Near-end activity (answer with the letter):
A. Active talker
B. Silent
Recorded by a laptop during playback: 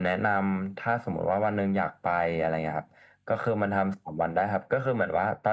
B